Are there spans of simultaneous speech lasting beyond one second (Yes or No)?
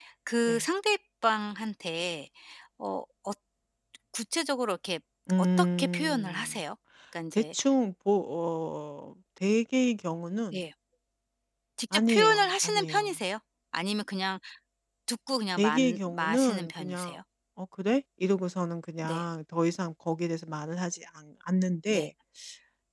Yes